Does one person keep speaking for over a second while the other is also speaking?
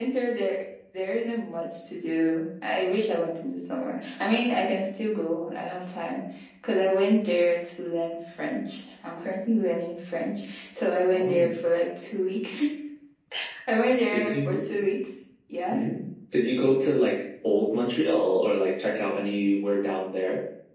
No

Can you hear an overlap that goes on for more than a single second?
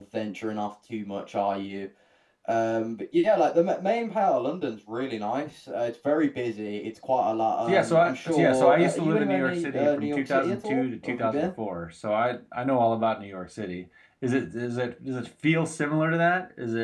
Yes, from 7.7 s

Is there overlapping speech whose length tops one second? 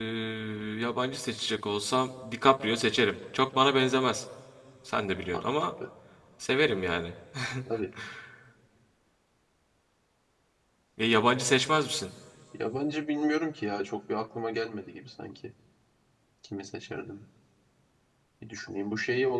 No

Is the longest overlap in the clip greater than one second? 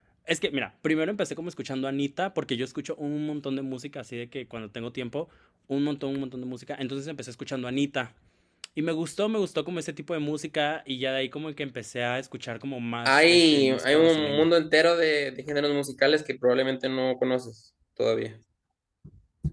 Yes, from 13.0 s

